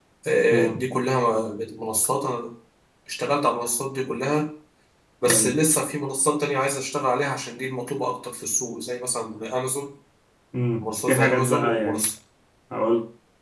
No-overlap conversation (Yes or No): No